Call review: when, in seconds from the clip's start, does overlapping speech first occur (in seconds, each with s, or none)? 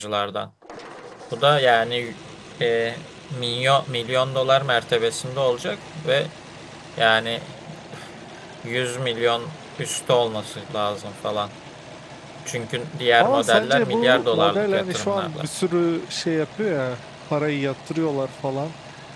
13.2 s